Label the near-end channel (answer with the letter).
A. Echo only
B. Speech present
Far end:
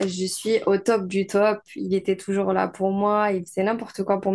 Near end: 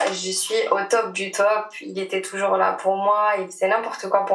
A